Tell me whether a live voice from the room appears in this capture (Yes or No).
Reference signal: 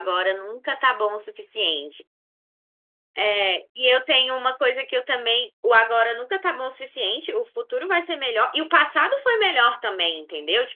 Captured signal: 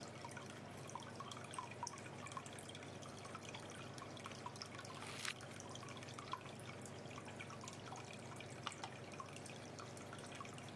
No